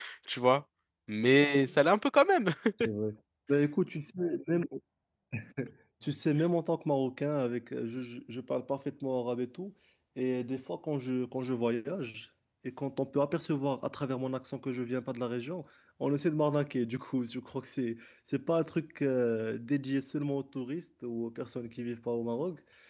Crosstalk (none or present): none